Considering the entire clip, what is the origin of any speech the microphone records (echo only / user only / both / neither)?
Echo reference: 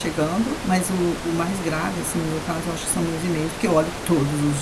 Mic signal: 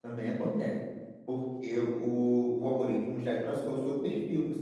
user only